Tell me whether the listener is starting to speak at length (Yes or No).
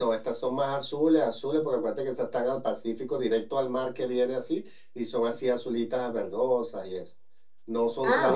No